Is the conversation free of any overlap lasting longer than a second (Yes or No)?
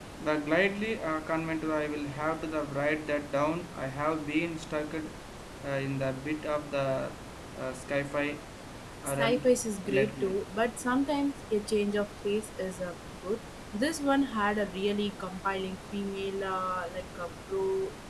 Yes